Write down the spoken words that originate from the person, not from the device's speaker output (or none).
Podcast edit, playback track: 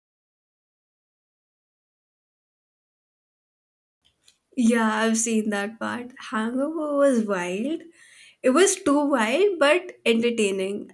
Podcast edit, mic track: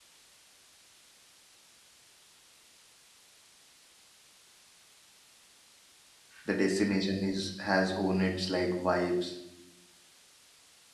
the destination is has own its like vibes